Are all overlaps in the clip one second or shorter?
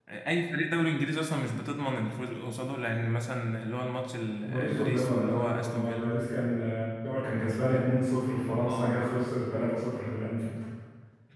No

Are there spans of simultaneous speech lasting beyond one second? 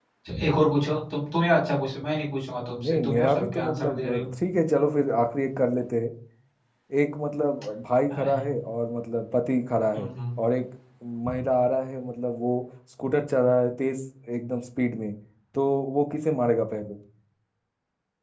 Yes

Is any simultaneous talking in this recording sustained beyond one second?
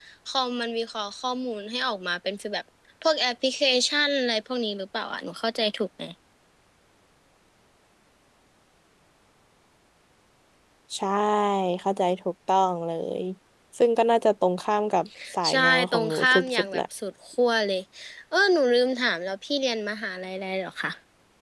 Yes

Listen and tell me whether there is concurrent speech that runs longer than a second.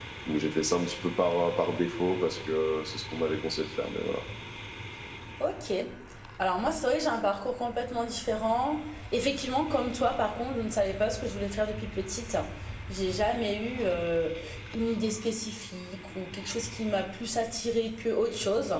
No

